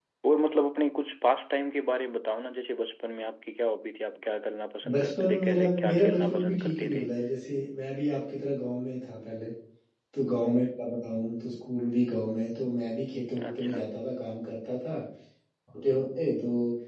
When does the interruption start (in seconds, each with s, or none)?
4.9 s